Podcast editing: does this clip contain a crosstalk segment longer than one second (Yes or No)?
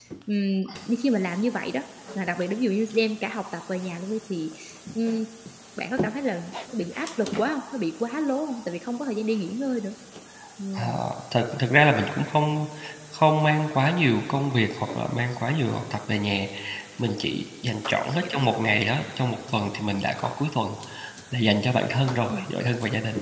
No